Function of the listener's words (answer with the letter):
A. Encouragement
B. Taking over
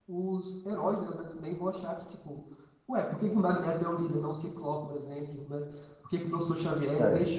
A